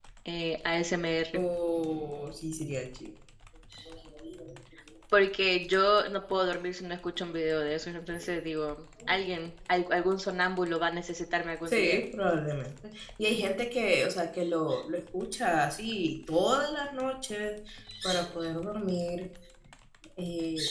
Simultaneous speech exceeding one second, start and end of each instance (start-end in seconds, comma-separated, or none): none